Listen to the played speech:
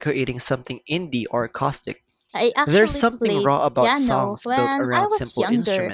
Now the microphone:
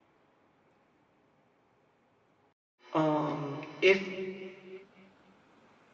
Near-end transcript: Um, if

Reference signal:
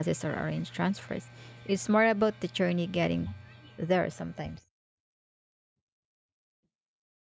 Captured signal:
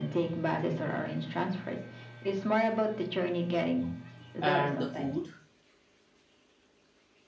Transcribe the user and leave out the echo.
and the food

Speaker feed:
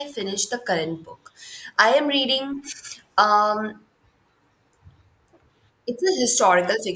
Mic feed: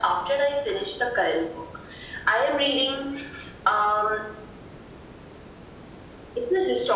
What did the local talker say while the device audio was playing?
none

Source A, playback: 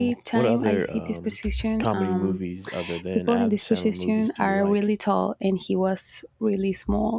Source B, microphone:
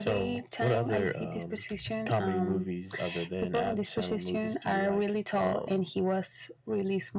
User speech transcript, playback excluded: um,

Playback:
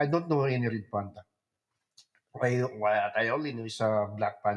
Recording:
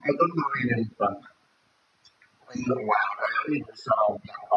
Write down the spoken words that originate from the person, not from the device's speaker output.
none

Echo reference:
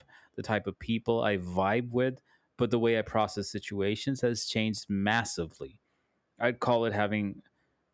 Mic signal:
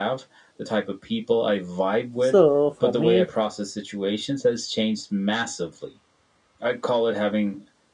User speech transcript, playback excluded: So, for me,

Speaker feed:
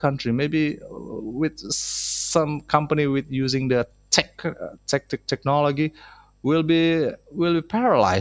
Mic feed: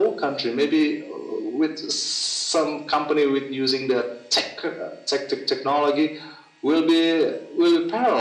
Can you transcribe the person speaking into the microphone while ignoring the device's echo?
none

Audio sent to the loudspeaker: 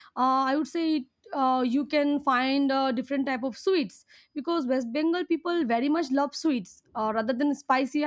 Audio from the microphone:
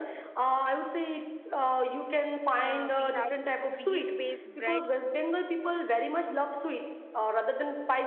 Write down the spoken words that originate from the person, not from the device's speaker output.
uh, we have wheat based breads

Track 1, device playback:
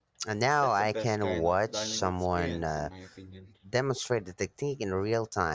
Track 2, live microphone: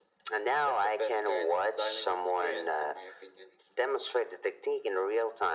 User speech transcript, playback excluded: none

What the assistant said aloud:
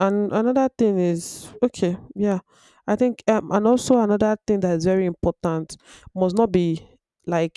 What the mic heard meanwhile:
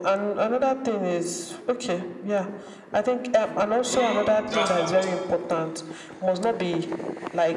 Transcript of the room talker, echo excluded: Mm, that's not possible.

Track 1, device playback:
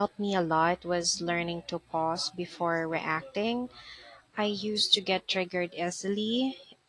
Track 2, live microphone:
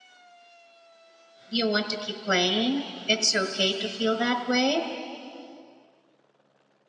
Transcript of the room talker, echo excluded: you want to keep playing. It's okay to feel that way,

